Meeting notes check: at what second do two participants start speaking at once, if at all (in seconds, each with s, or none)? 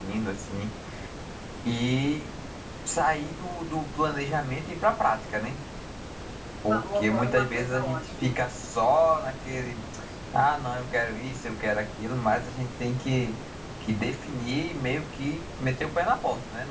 6.7 s